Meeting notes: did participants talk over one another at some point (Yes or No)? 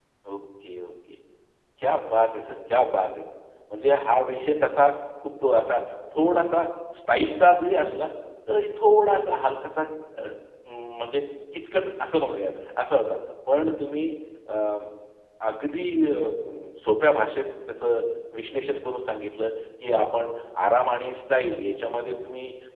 No